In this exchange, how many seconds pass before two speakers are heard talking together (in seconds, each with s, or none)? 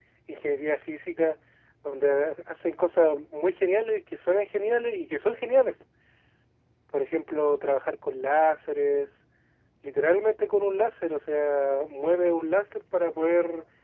none